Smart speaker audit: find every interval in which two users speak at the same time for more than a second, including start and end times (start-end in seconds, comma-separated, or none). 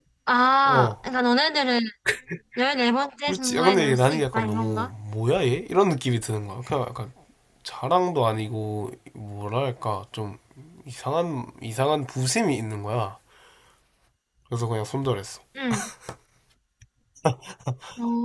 3.3-4.9